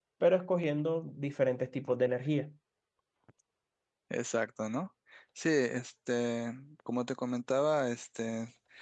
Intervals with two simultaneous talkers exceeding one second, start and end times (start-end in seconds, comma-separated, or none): none